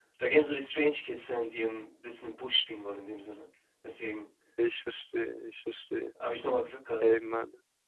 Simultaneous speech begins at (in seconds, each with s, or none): none